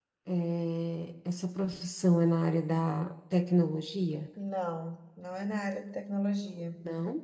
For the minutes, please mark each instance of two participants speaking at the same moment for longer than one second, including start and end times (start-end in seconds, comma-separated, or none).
none